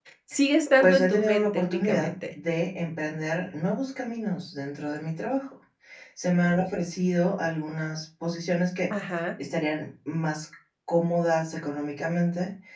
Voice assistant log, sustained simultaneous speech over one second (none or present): present